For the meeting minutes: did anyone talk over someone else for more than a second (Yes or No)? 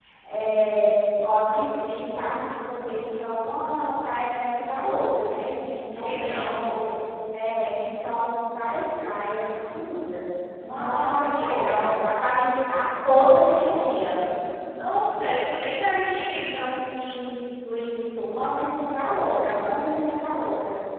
Yes